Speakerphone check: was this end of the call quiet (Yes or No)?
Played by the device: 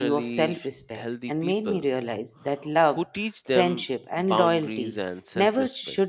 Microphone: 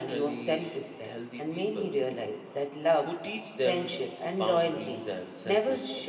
Yes